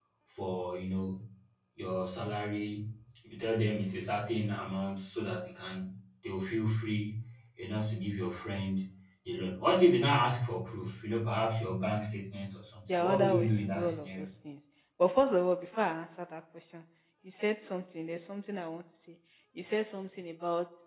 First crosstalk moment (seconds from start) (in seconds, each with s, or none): 12.9 s